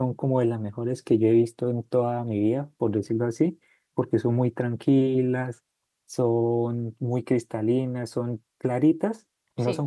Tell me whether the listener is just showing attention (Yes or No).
Yes